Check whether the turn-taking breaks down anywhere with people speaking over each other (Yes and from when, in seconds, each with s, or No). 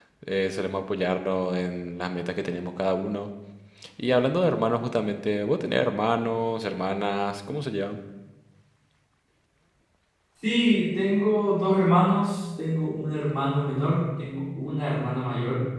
No